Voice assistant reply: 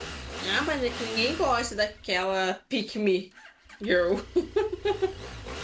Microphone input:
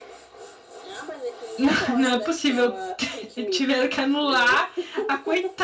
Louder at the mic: user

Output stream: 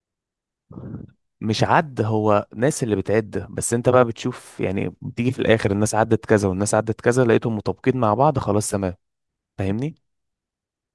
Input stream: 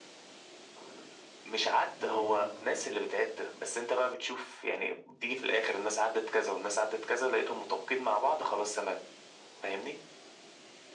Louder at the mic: echo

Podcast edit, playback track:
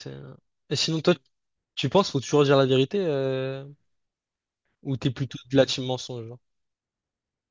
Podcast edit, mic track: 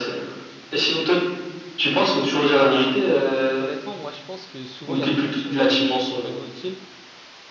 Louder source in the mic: echo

